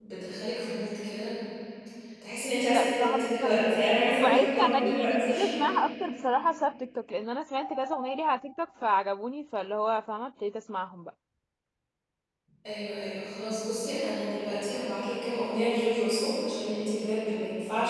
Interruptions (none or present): present